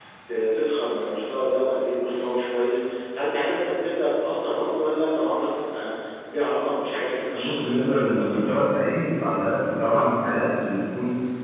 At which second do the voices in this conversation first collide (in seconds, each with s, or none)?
7.3 s